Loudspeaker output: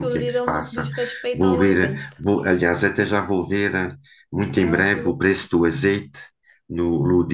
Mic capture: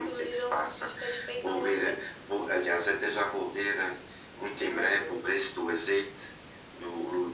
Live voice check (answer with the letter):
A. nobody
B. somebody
A